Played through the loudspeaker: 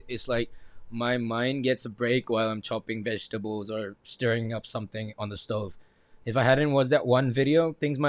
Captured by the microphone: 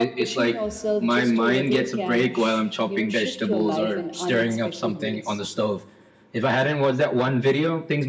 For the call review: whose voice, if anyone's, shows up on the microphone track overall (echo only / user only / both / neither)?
both